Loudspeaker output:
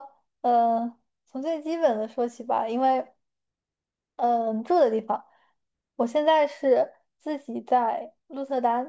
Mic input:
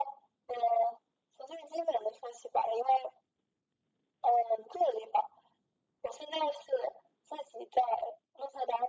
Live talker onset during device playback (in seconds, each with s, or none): none